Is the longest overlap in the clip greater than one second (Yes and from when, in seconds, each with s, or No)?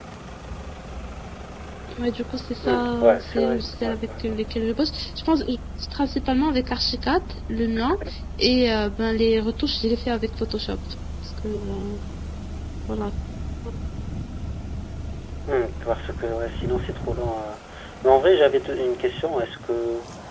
Yes, from 2.6 s